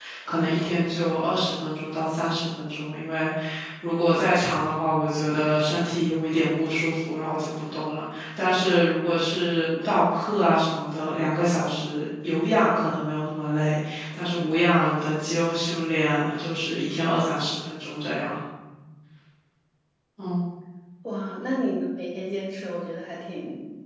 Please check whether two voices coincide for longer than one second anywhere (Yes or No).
No